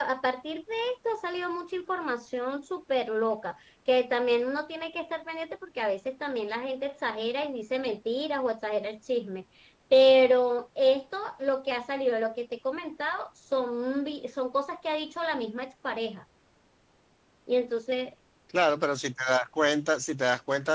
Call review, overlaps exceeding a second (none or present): none